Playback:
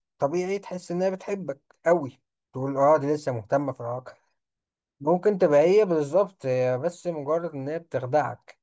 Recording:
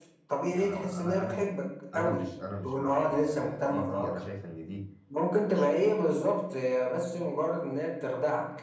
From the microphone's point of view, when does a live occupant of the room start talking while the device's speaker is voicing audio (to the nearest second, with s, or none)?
0 s